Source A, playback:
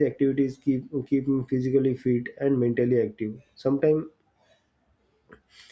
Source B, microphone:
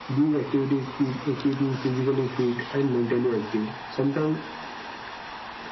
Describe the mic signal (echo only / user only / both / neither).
echo only